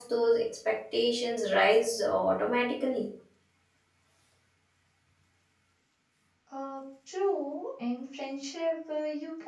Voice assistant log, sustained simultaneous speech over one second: none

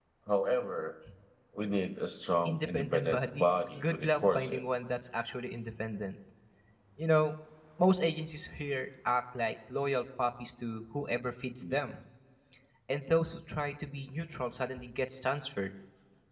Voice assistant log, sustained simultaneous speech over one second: present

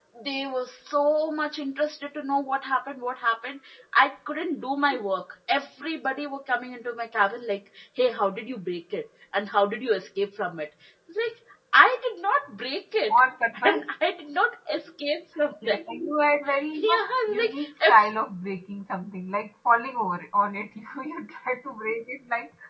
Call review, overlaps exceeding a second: present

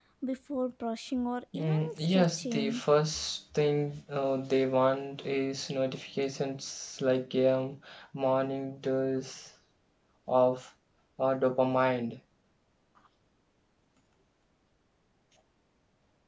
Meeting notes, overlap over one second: present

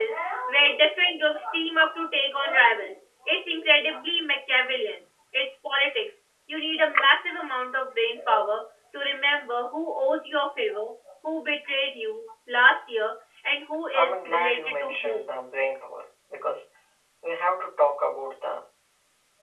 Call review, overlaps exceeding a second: present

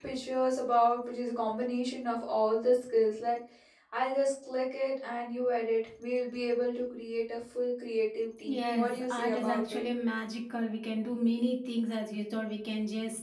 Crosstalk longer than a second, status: present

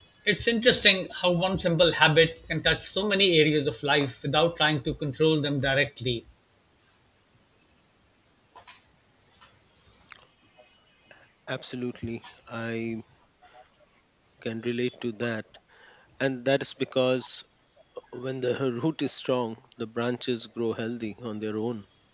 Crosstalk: none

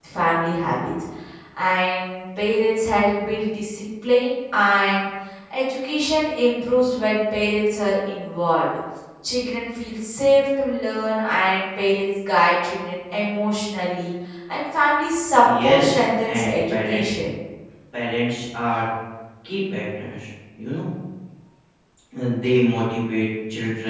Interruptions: present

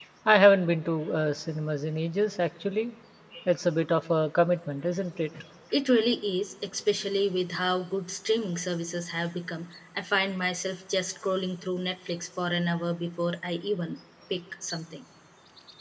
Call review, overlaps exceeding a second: none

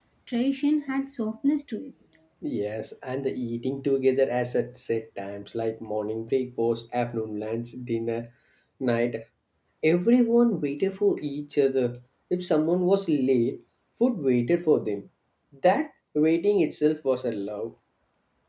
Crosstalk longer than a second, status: none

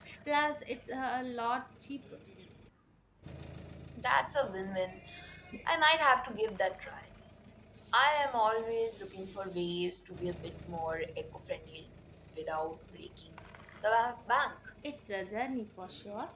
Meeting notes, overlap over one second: none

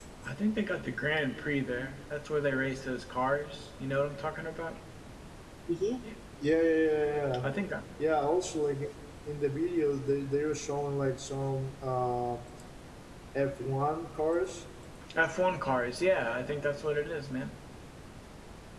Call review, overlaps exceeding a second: none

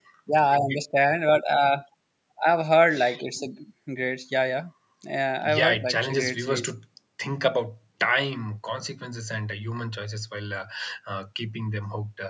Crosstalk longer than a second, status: present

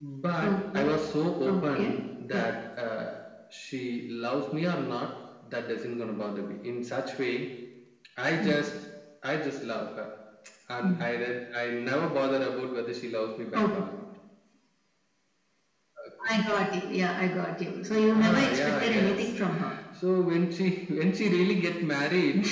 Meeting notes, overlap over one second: present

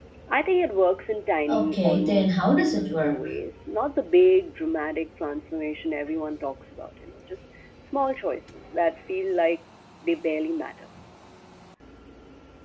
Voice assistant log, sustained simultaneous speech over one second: present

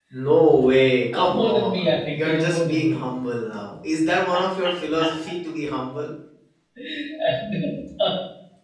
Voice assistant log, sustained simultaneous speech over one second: present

